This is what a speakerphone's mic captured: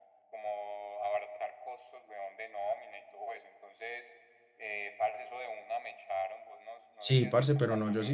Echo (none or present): present